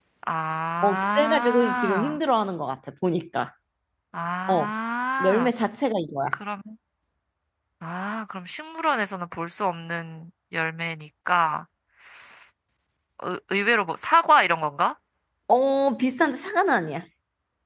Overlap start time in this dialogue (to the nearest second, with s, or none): 1 s